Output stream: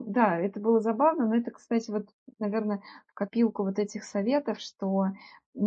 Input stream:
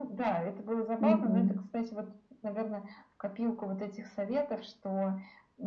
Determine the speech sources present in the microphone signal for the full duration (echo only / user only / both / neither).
both